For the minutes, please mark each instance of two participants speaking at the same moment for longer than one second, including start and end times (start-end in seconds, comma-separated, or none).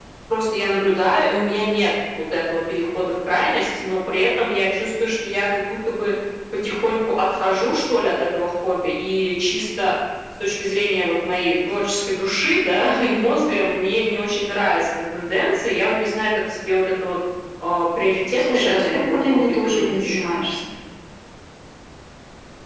18.4-20.3